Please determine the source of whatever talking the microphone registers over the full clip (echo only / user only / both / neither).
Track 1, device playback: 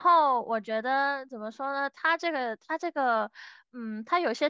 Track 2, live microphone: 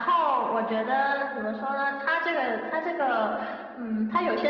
echo only